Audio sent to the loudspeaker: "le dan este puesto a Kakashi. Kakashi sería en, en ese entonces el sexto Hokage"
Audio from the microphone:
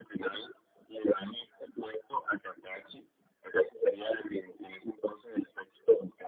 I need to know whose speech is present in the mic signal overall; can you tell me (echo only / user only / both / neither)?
echo only